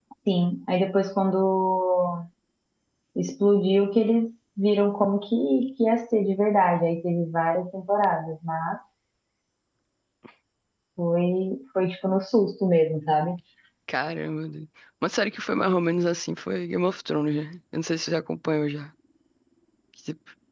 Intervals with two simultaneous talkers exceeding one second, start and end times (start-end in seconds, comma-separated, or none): none